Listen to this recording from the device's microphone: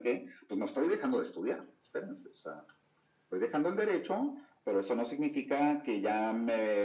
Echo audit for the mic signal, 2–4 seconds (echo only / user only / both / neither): echo only